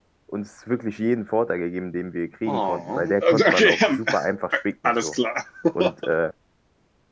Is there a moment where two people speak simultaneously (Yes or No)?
Yes